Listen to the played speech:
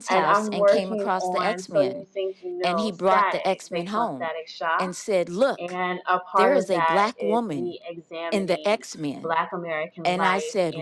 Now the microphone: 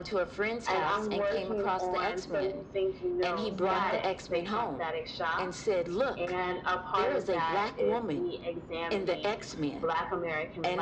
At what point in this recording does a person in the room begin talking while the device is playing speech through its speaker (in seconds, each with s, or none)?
3.3 s